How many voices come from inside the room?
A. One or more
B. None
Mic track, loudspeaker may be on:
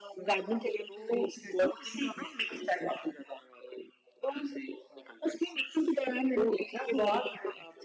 B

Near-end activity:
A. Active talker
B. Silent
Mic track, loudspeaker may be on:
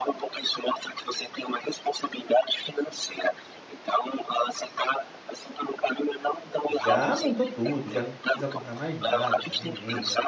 A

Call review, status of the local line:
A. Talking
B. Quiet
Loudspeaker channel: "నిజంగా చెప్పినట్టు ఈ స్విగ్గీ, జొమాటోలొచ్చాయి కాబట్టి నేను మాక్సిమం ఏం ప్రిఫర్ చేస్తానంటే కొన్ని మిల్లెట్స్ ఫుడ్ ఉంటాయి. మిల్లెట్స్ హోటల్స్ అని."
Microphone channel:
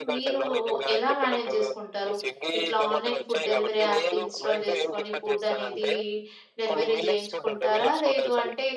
A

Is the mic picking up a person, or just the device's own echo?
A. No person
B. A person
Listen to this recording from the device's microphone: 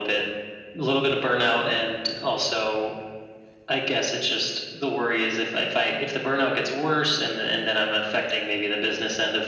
A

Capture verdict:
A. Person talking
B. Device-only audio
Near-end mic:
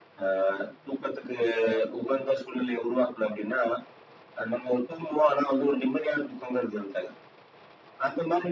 B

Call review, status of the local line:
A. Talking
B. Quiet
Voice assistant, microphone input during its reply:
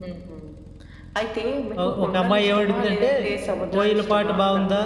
A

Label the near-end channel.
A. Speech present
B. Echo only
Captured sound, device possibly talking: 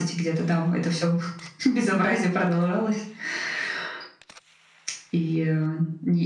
B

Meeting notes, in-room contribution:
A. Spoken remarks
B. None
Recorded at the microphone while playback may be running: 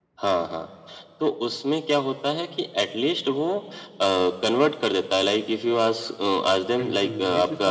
A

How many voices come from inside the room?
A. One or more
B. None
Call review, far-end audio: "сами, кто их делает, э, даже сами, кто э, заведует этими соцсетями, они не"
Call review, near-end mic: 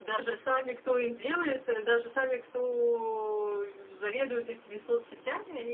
B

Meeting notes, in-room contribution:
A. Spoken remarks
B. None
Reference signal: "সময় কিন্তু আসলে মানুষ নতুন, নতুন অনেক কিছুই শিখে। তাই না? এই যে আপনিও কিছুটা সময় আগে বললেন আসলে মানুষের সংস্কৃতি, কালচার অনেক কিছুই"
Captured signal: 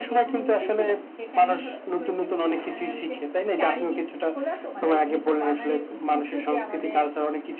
A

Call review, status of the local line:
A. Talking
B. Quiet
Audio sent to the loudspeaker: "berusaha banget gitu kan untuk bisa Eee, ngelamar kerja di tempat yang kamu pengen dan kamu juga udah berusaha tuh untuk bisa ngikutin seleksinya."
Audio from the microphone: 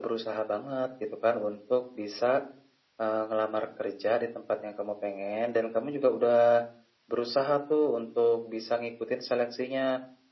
B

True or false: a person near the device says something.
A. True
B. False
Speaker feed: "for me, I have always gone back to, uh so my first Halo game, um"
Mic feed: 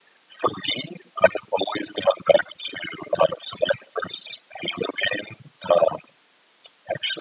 B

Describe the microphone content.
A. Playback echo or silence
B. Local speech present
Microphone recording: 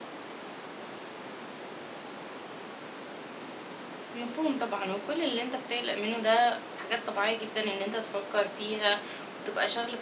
B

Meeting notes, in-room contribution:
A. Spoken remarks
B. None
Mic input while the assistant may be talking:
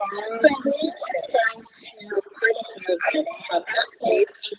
B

